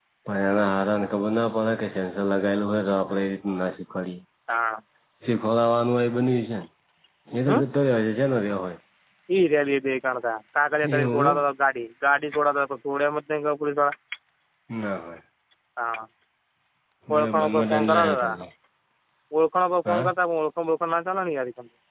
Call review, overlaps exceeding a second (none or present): present